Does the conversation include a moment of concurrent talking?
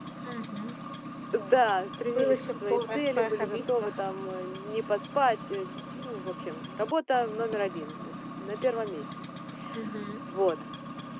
Yes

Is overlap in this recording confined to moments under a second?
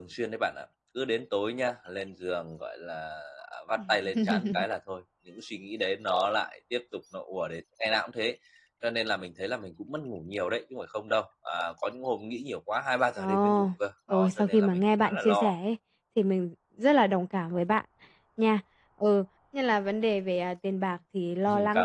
No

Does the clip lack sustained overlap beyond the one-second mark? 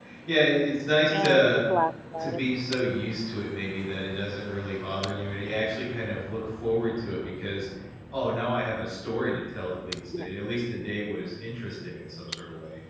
Yes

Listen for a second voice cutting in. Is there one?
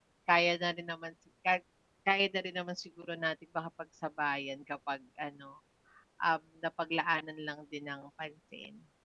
No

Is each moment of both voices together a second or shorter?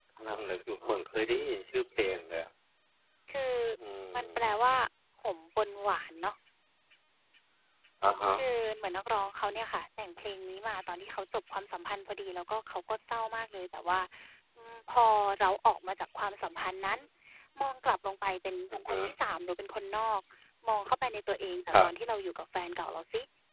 Yes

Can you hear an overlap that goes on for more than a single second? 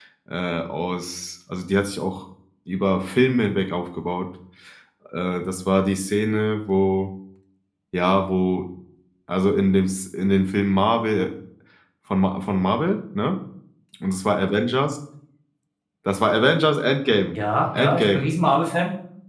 No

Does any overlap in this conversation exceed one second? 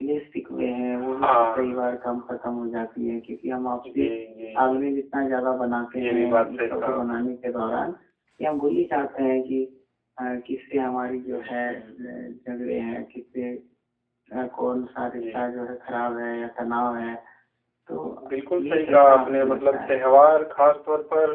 Yes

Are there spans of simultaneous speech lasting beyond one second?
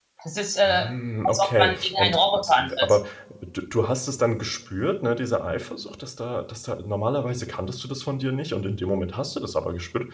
Yes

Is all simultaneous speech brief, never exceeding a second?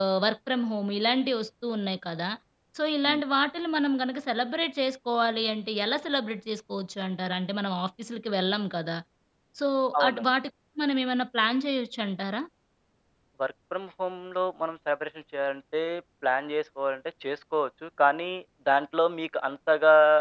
Yes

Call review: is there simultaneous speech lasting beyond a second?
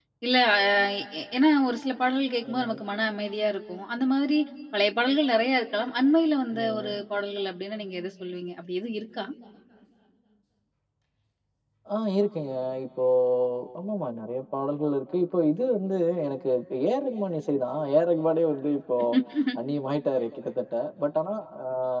No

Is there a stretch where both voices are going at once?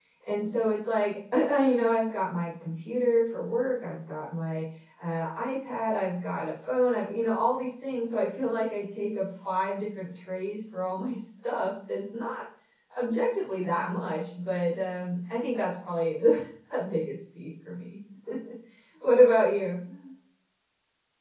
No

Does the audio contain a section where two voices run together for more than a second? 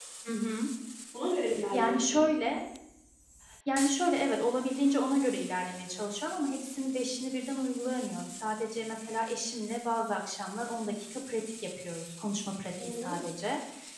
No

